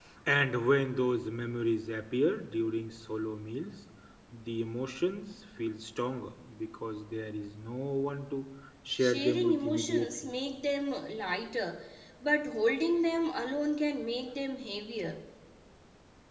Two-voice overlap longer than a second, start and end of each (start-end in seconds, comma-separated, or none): 9.0-10.3